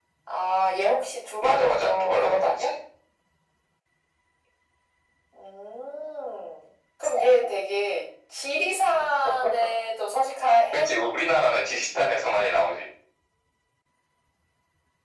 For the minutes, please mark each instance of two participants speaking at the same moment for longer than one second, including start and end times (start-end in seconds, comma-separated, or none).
1.4-2.7